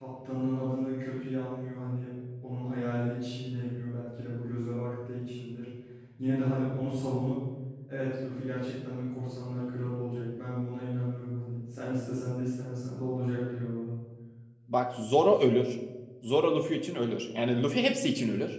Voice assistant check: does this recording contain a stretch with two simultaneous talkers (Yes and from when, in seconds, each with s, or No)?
No